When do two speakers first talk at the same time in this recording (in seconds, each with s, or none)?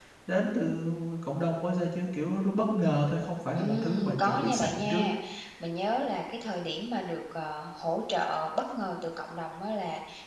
3.6 s